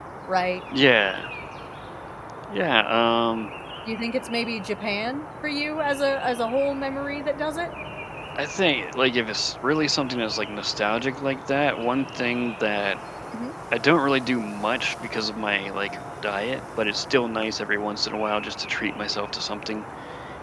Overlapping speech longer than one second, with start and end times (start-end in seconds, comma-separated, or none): none